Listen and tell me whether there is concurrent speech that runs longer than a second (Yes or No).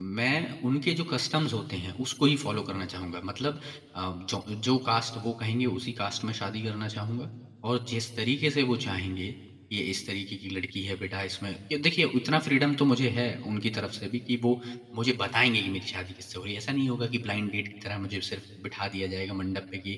No